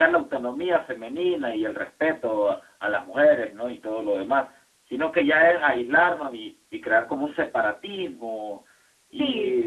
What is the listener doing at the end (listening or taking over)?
listening